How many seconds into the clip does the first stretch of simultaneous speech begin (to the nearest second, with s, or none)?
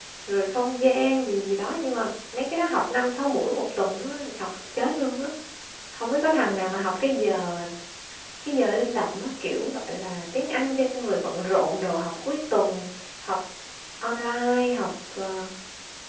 none